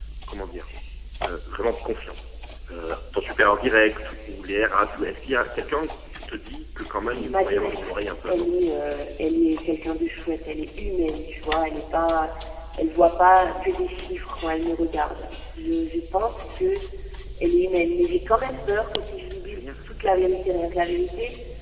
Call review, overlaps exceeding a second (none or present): present